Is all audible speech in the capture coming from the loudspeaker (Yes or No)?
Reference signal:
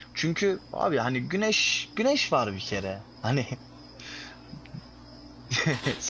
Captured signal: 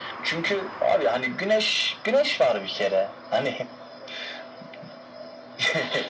Yes